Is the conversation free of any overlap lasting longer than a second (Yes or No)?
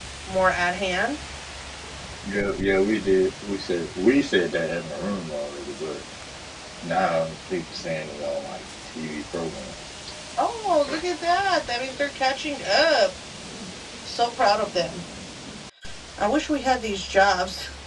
Yes